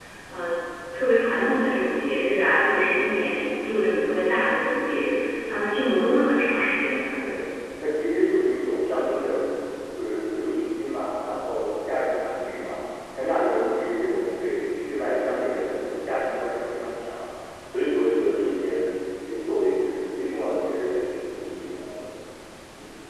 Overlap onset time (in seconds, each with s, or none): none